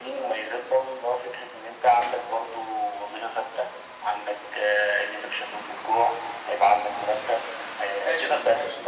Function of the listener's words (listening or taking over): taking over